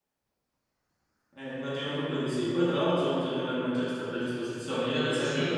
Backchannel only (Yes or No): Yes